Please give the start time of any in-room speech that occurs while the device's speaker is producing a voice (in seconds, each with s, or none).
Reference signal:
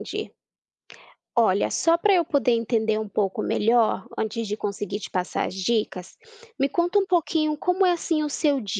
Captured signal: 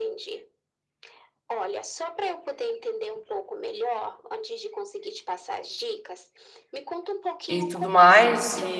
7.5 s